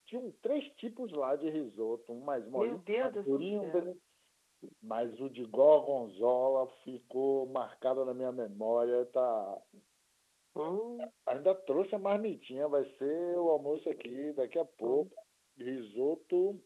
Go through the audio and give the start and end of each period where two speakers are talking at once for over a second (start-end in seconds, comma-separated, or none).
2.6-3.9